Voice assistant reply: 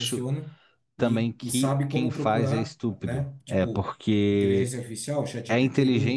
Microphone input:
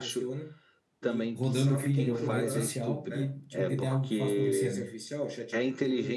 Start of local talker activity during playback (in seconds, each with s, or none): 1.3 s